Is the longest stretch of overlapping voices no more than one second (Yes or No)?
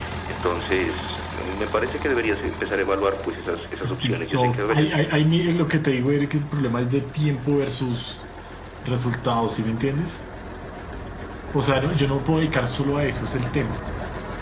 No